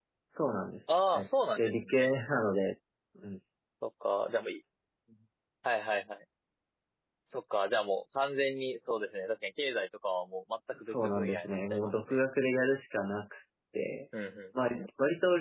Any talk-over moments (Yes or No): Yes